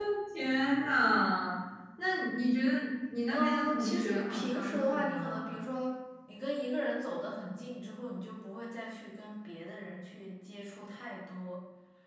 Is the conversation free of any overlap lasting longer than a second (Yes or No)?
No